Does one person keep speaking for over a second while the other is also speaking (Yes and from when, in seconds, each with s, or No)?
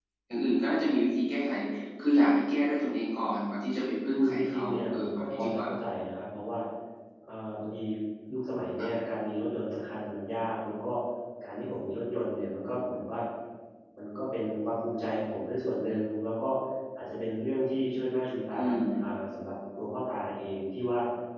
Yes, from 4.1 s